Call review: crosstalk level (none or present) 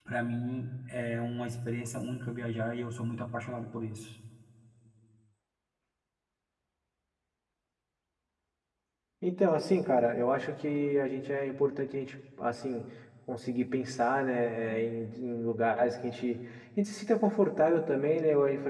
none